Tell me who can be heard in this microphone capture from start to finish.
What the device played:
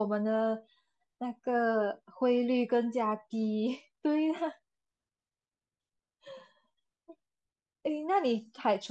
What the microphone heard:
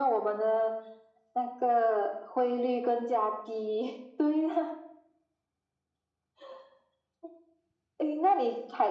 echo only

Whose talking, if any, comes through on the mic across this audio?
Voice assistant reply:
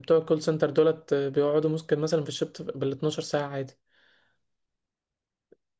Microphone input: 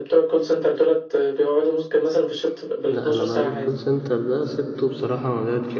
both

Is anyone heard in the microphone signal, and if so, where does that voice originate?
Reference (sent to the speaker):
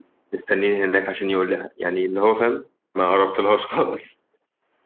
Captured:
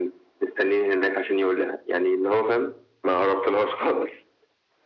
echo only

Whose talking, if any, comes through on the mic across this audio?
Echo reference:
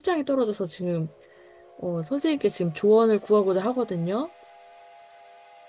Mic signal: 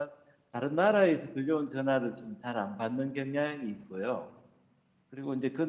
user only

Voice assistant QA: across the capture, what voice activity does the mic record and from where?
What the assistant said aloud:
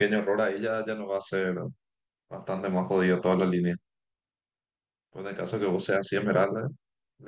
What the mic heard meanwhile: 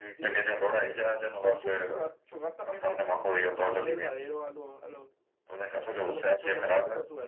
both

